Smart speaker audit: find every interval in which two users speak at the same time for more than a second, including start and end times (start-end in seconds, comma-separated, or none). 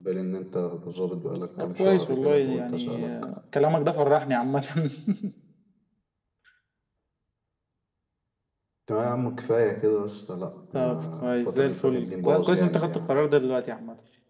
1.6-3.1, 10.7-13.1